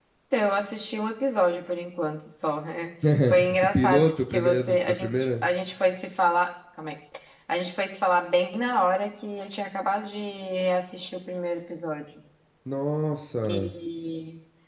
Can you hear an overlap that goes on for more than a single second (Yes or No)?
Yes